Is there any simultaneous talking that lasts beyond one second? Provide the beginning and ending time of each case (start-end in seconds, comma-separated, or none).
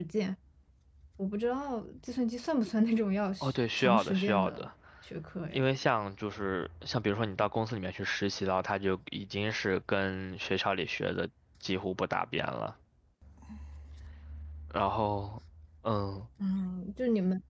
3.4-4.7